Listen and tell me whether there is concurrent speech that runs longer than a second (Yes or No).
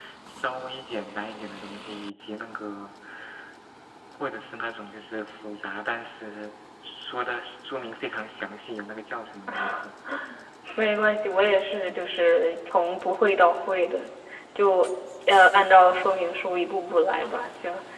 No